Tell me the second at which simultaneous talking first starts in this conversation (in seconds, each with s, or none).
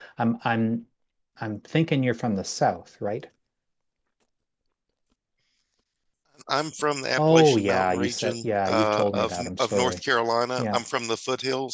7.2 s